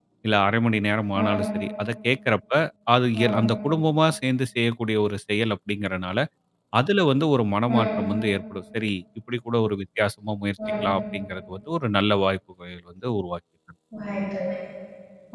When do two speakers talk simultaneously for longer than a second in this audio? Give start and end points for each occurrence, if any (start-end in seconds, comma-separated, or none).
none